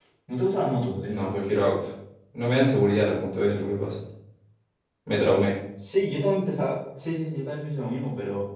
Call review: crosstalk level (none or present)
none